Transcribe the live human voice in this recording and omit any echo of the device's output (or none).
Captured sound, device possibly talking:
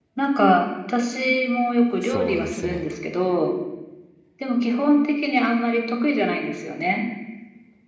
そうですね。